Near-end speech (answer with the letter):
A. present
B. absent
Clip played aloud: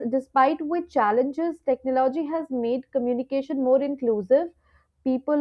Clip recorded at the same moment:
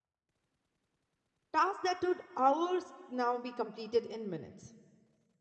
A